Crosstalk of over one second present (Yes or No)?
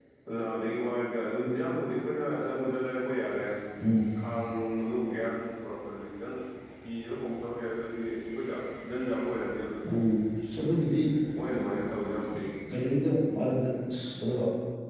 No